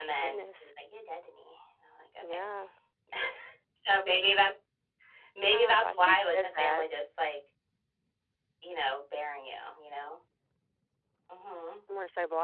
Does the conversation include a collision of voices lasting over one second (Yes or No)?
Yes